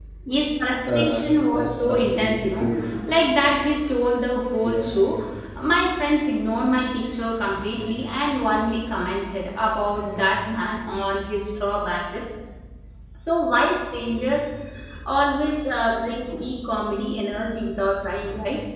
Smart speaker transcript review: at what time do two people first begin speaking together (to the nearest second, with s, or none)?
1 s